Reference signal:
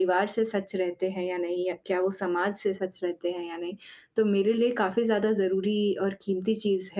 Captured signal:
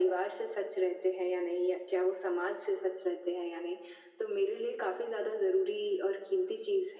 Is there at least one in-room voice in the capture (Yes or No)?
No